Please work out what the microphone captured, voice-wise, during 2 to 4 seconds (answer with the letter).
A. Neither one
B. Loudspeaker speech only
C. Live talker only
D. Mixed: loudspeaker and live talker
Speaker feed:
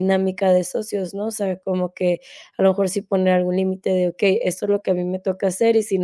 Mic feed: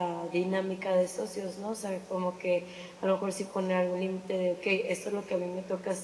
B